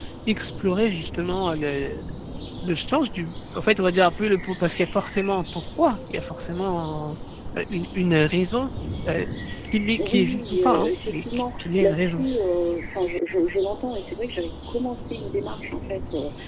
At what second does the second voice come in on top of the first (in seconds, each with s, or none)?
10.0 s